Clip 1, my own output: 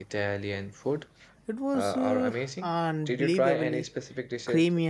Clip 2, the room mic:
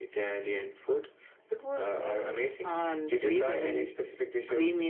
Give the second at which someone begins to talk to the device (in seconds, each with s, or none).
none